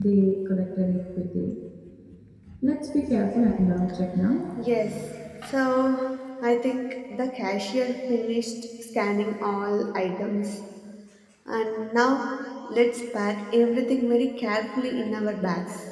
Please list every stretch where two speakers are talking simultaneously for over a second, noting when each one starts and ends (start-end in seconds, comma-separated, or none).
none